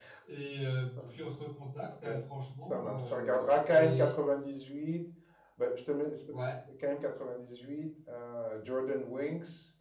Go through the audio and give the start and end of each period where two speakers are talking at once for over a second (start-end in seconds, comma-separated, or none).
2.6-4.1